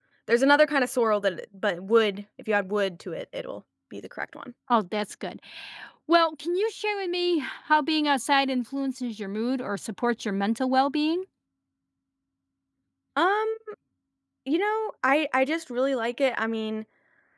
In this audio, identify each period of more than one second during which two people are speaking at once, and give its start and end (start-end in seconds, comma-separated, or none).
none